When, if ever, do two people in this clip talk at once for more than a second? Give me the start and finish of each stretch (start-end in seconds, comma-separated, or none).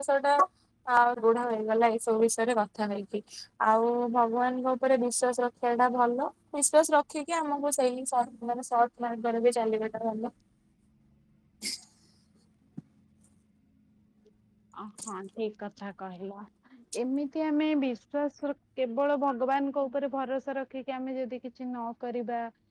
none